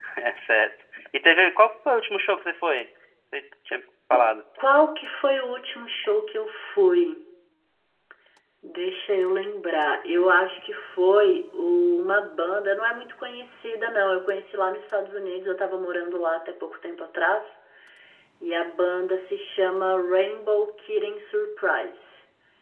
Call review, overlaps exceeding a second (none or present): none